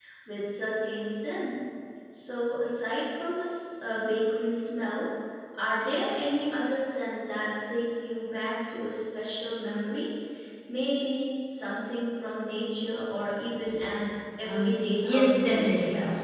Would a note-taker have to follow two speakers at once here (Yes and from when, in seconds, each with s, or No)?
Yes, from 14.4 s